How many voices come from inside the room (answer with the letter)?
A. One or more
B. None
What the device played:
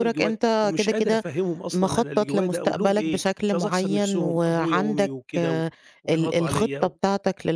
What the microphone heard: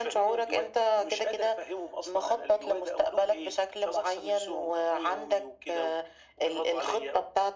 B